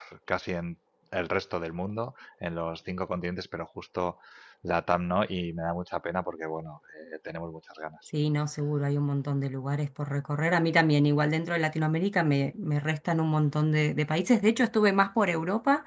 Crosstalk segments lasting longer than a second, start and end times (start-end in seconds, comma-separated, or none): none